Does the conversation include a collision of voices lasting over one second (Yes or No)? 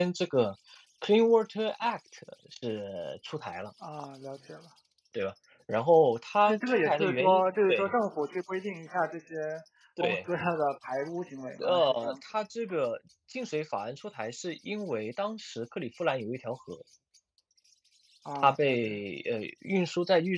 Yes